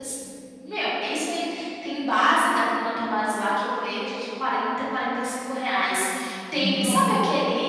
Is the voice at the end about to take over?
No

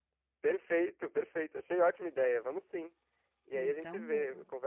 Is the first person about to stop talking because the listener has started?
No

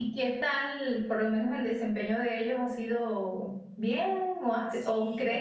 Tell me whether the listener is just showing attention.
Yes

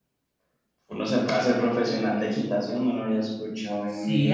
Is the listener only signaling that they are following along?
No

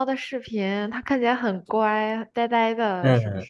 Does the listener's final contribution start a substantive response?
Yes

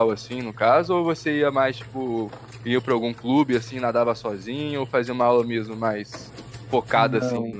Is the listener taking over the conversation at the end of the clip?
Yes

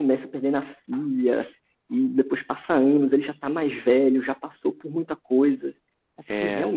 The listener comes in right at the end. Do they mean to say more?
No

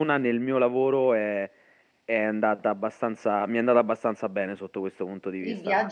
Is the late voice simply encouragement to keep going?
No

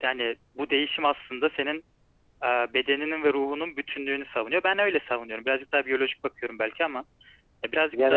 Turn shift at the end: Yes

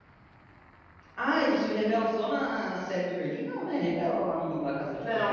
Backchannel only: No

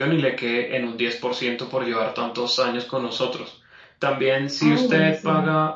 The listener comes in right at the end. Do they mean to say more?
No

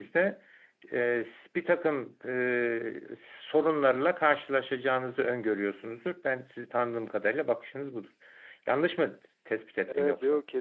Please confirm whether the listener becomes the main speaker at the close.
Yes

